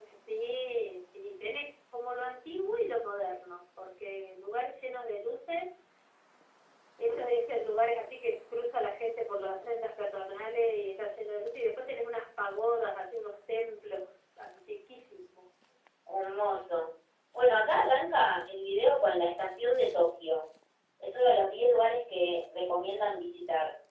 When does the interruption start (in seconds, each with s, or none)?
none